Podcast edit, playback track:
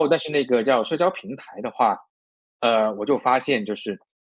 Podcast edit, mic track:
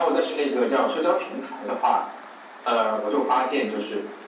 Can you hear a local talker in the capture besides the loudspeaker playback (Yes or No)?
No